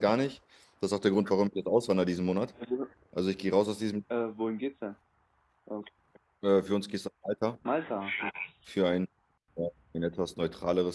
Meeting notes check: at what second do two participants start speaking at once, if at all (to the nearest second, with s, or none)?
none